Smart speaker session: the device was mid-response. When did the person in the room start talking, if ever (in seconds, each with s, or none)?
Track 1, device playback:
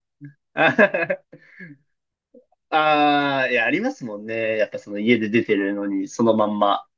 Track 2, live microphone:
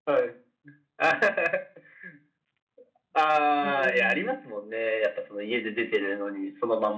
3.6 s